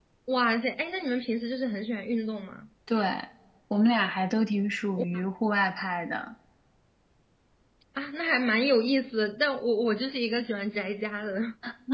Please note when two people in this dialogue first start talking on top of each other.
none

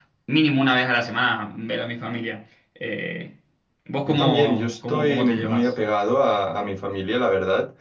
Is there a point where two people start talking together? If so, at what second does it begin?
4.0 s

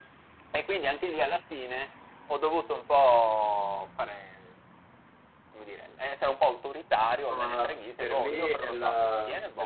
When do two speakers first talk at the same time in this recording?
7.3 s

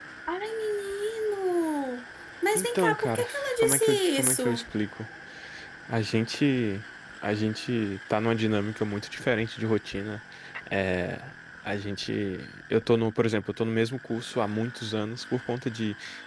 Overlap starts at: 2.5 s

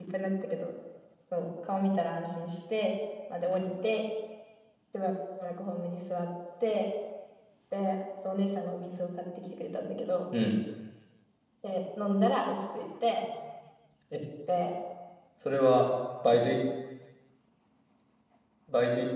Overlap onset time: none

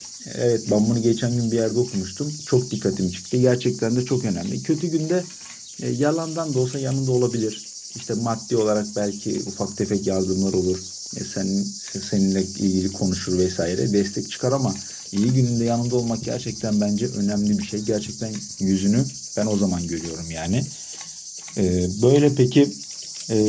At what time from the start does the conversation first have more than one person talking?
none

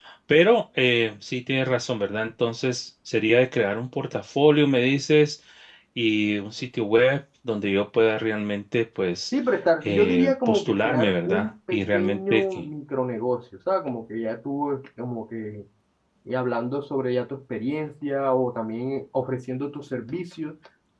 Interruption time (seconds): 9.8 s

